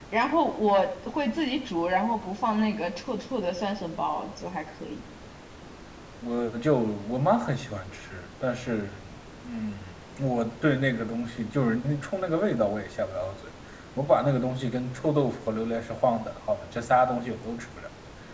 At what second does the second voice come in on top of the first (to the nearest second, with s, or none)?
none